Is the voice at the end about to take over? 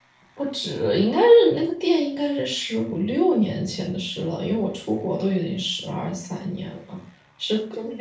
No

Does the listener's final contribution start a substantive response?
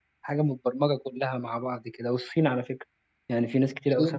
Yes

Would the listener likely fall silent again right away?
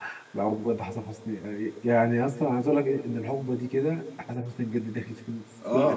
No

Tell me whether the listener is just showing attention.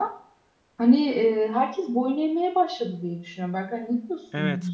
No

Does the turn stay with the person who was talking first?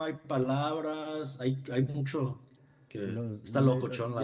No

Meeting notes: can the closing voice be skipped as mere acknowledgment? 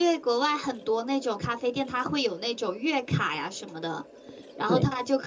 Yes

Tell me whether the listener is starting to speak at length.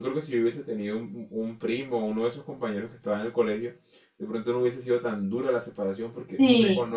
No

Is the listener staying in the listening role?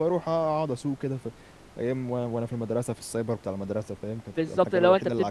No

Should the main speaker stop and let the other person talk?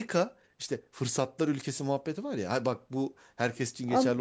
Yes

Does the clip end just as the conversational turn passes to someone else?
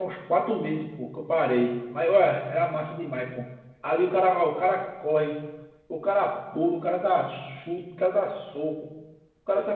No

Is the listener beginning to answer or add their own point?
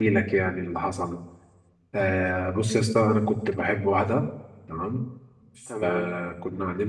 No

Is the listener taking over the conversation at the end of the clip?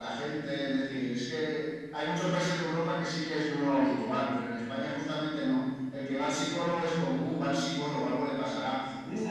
No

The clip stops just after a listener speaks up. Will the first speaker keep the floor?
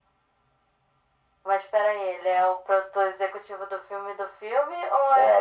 No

